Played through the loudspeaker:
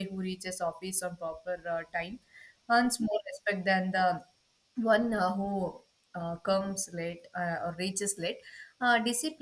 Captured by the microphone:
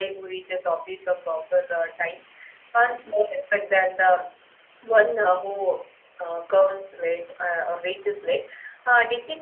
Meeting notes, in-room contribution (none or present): none